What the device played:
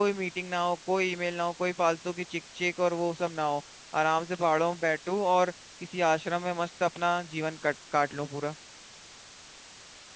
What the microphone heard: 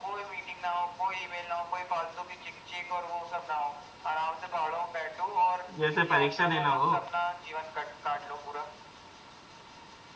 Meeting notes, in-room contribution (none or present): present